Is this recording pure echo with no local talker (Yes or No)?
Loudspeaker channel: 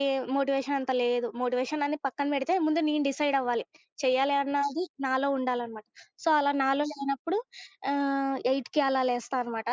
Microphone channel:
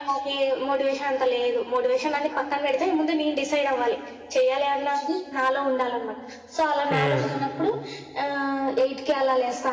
No